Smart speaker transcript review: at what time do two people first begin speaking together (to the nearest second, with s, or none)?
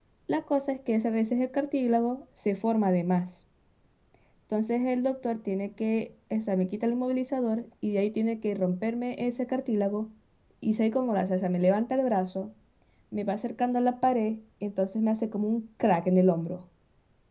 none